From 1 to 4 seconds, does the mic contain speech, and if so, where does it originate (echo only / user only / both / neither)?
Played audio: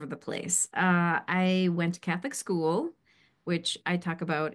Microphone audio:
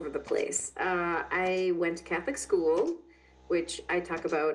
echo only